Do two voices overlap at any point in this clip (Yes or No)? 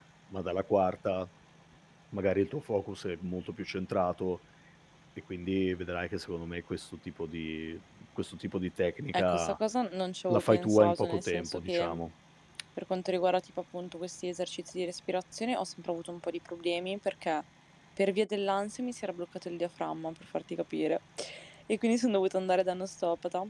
Yes